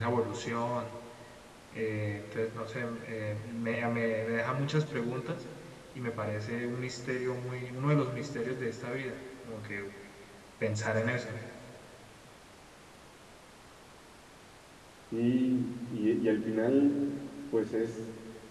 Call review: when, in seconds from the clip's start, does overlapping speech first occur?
none

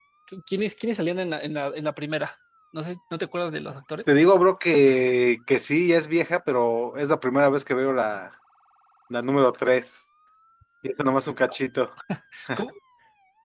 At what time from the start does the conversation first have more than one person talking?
none

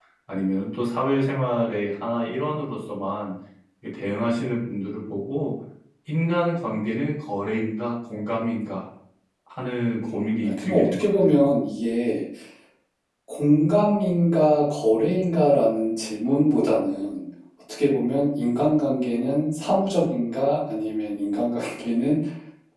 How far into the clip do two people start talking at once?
10.0 s

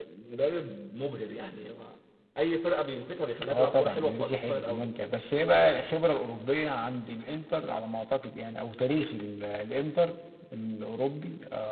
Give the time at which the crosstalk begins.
3.4 s

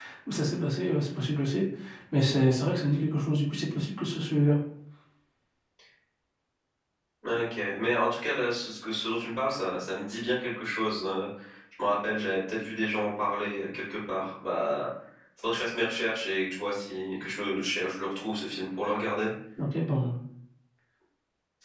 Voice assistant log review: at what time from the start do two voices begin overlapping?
none

